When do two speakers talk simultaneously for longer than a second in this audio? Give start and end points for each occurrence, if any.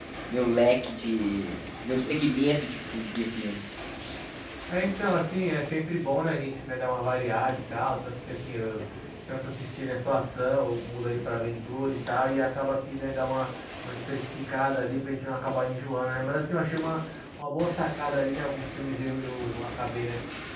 none

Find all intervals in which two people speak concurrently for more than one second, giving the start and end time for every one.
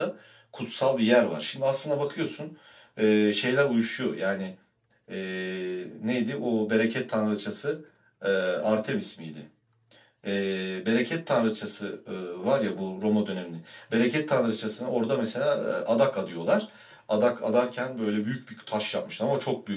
none

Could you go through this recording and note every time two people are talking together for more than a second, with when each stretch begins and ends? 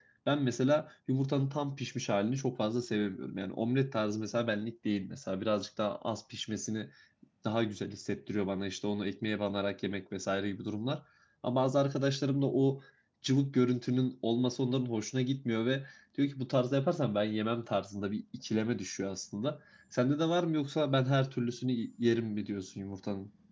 none

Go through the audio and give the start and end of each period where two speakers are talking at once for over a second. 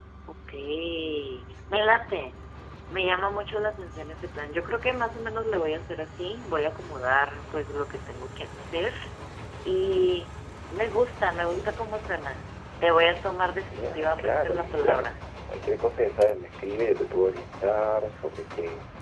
13.7-15.2

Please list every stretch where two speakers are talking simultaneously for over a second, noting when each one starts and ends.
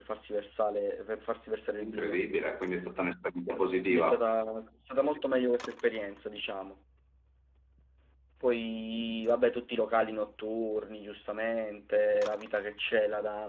none

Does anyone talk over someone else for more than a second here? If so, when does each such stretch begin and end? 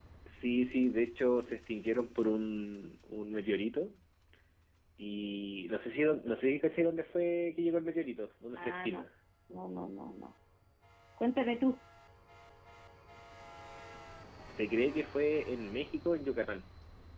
none

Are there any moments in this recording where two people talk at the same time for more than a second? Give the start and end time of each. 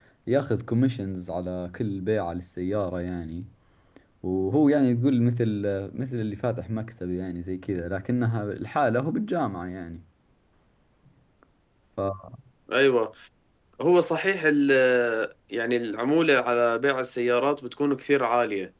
none

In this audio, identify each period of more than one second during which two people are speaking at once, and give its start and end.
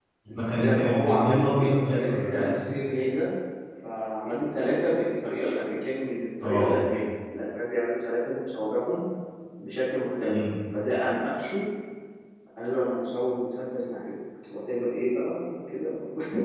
0.6-2.7

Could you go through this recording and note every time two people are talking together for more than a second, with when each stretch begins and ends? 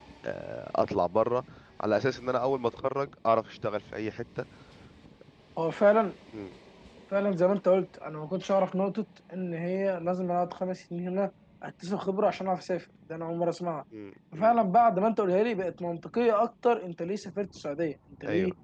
none

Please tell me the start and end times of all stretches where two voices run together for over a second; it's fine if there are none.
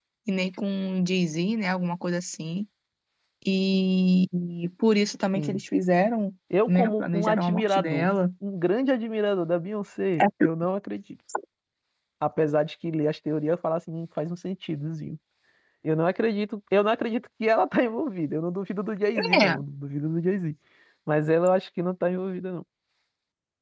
6.7-8.1

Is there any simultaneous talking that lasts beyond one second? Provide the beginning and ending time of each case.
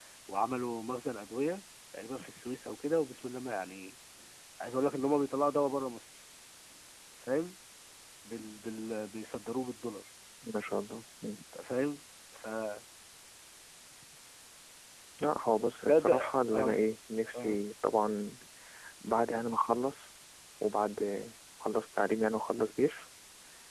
none

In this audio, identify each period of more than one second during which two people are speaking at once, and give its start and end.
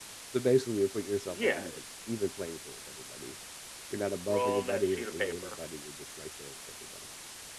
4.3-5.5

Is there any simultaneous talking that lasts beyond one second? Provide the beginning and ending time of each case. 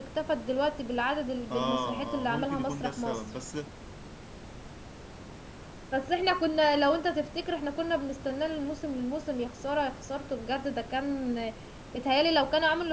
1.5-3.2

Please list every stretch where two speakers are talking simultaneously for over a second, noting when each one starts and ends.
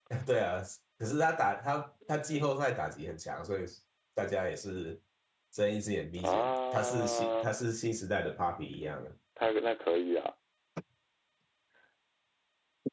6.2-7.5

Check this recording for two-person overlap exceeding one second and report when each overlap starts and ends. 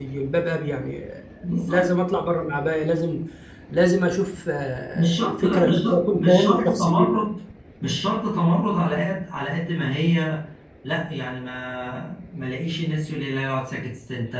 4.9-7.1

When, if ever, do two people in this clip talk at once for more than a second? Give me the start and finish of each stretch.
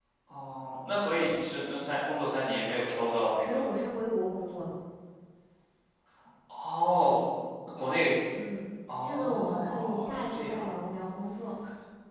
9.0-10.7

